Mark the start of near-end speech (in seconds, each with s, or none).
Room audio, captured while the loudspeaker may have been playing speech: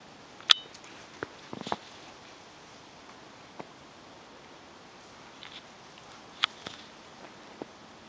none